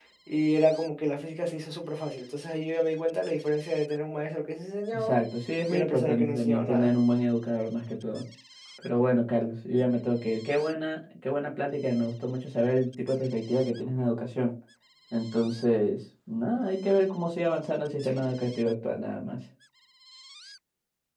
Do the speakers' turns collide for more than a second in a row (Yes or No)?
Yes